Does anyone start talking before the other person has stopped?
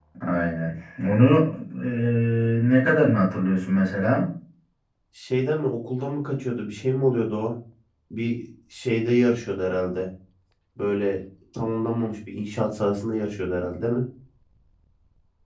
No

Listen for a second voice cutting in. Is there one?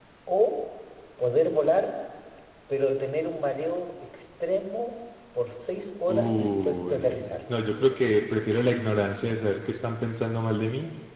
Yes, from 6.1 s

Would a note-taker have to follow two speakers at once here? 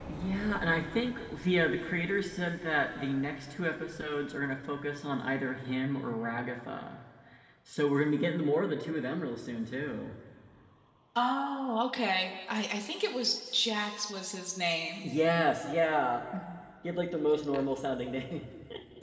No

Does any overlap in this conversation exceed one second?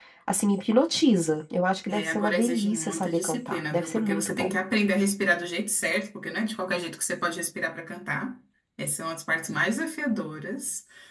Yes, from 1.9 s

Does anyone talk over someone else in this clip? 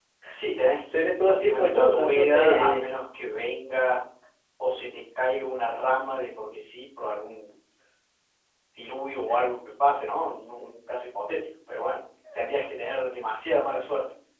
Yes, from 0.9 s

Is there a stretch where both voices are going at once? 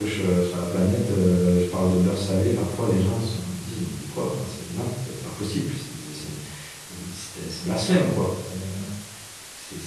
No

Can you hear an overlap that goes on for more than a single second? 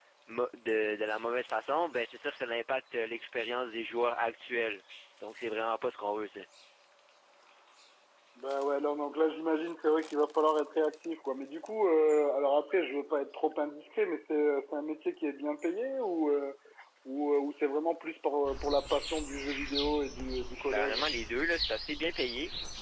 No

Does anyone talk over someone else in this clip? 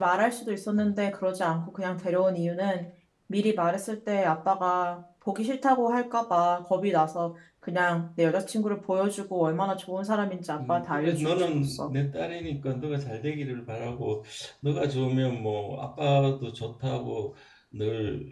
Yes, from 10.6 s

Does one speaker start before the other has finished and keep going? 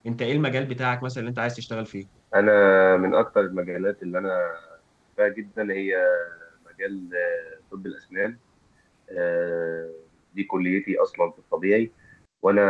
No

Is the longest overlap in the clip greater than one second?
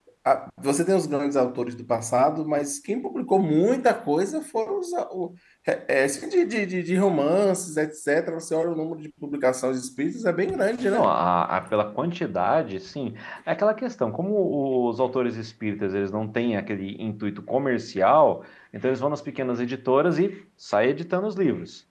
No

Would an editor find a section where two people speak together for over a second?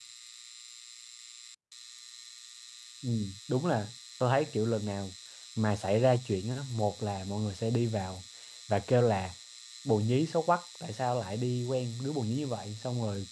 No

